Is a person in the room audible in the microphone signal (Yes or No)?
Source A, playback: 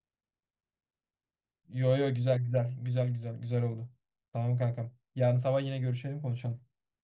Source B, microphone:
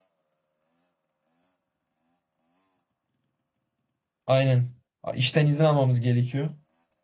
Yes